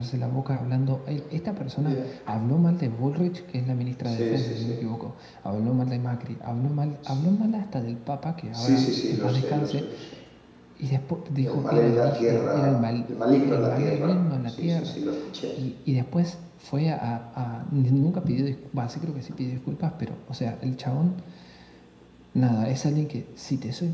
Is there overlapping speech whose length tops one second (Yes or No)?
Yes